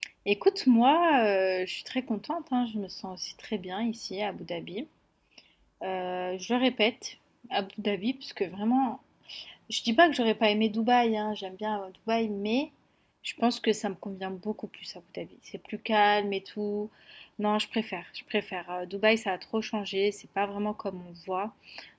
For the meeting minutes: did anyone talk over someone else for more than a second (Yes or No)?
No